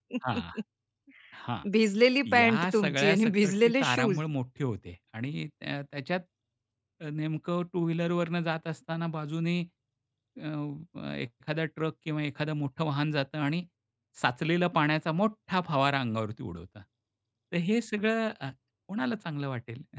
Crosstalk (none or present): present